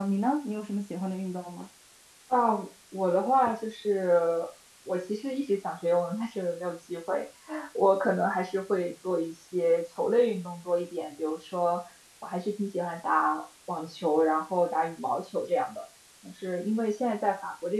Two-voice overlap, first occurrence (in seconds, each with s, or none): none